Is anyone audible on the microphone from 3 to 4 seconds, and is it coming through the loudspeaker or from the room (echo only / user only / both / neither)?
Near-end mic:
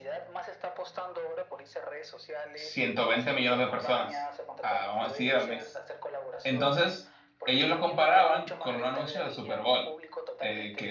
both